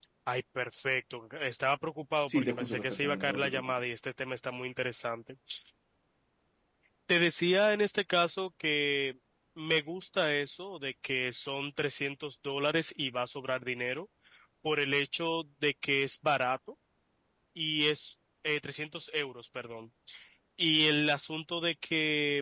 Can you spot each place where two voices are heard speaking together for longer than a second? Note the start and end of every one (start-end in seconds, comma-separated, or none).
2.3-3.8